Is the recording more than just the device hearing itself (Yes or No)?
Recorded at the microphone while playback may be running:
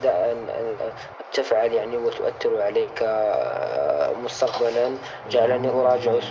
Yes